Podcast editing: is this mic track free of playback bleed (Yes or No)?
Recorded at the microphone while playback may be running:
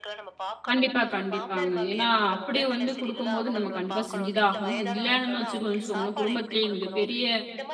No